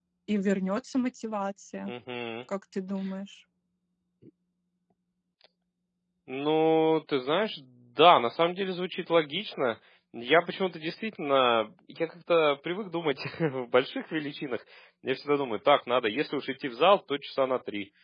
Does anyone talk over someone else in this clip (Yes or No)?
No